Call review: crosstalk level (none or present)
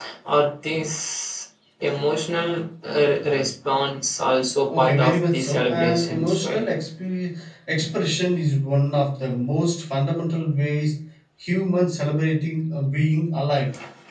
present